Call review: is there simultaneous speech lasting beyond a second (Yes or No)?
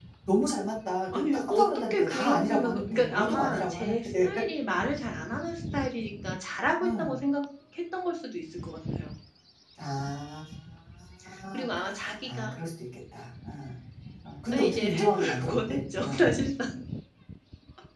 Yes